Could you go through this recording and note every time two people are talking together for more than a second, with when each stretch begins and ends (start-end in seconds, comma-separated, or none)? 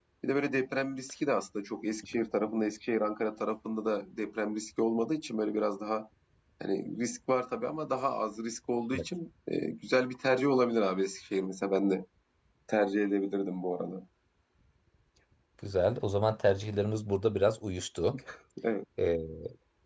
none